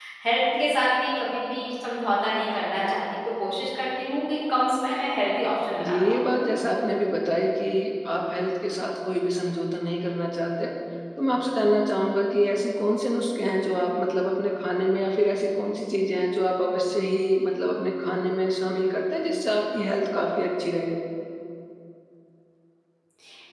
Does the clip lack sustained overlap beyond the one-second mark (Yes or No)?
Yes